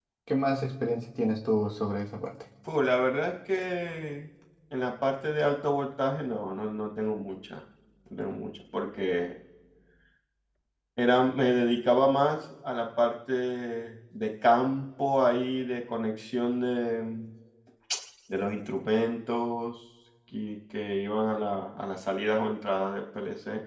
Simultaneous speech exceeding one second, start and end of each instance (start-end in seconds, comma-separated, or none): none